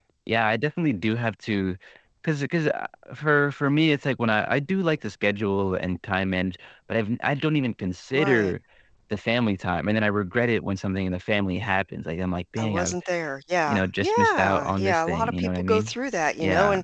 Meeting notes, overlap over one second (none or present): present